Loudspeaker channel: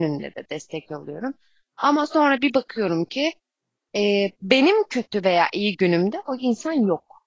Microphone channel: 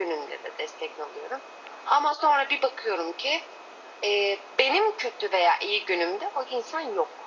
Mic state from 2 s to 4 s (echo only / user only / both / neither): echo only